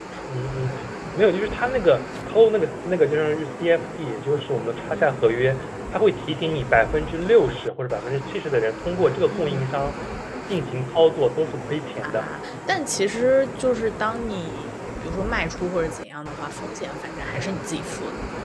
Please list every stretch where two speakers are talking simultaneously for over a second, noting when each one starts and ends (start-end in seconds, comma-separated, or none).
none